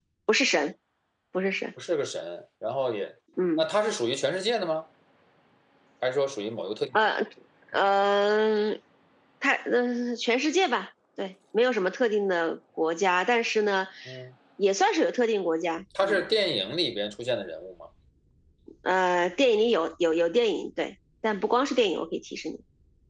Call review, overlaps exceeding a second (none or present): none